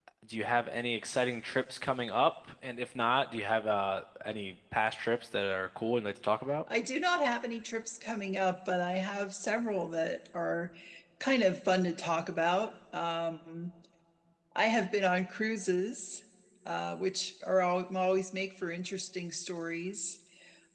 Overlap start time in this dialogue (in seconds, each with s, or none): none